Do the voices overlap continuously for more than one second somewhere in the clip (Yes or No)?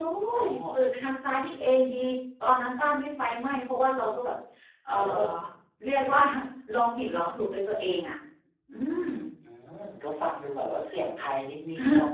No